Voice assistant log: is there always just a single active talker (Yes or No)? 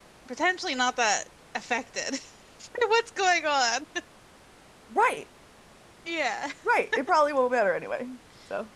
Yes